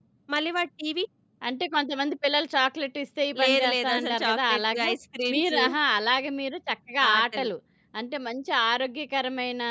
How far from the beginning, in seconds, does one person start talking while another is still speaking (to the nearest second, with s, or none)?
3 s